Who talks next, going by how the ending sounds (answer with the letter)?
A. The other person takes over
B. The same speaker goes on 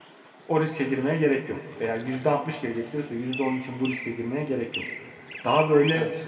B